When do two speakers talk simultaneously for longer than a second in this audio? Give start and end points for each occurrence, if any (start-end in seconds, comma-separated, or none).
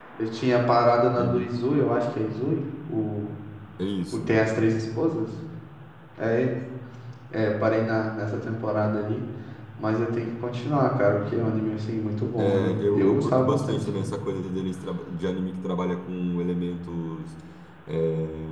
12.4-14.1